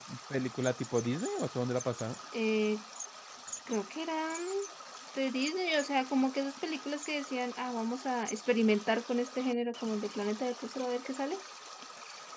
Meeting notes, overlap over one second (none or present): none